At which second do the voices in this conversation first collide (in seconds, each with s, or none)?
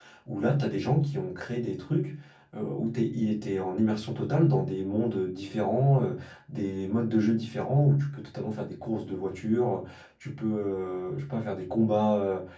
none